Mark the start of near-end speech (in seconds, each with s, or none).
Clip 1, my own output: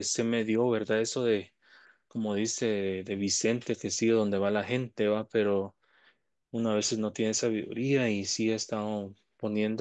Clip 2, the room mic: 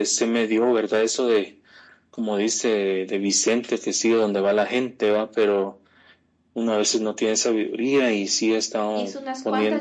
8.9 s